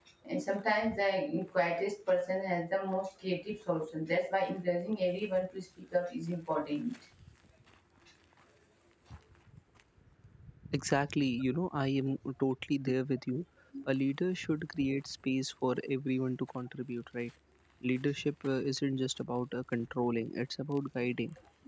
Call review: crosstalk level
none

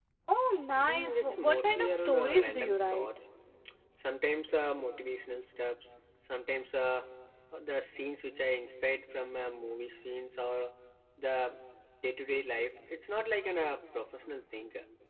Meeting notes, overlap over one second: present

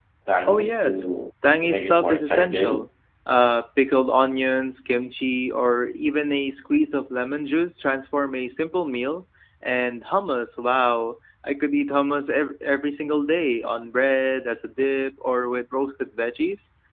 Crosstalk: present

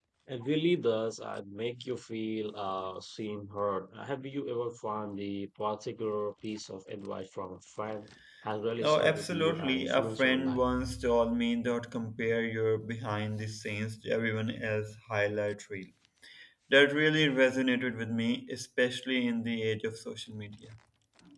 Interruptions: present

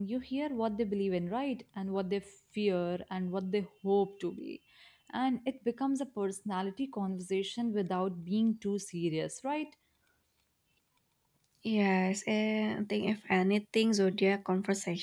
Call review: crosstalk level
none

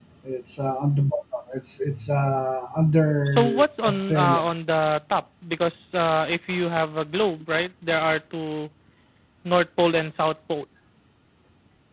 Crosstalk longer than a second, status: present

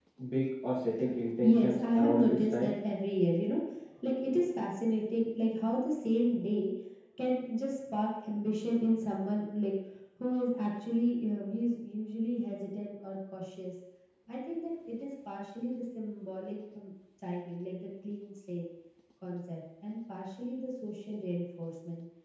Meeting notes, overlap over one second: present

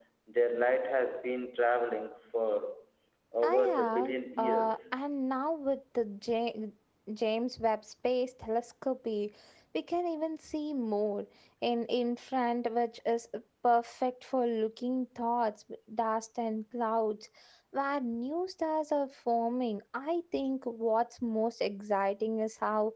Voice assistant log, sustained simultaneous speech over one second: present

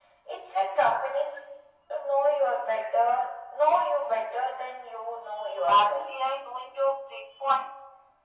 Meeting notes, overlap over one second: none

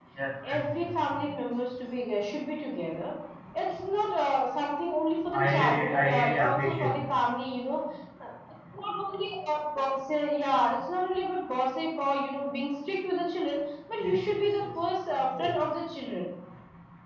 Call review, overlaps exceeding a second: present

